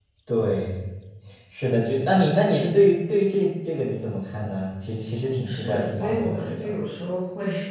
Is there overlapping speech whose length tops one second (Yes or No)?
Yes